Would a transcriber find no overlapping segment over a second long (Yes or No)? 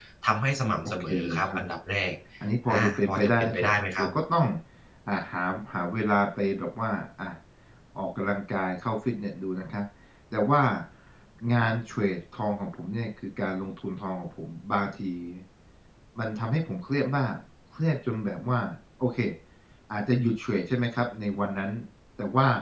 No